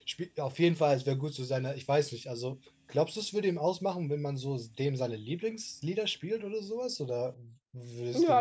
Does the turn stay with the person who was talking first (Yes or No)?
No